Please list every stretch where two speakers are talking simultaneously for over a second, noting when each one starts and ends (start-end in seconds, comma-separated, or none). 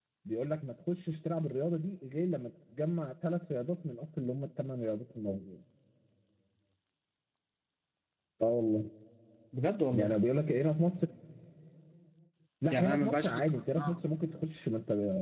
12.7-14.0